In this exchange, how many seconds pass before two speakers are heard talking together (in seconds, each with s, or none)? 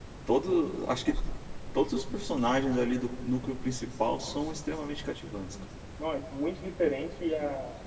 none